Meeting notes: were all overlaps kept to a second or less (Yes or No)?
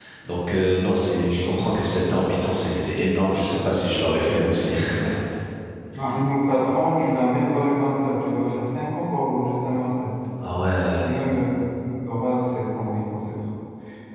Yes